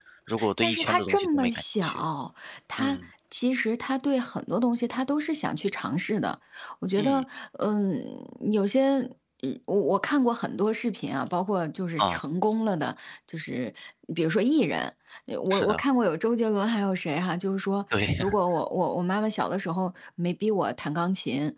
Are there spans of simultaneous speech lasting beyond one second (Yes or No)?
Yes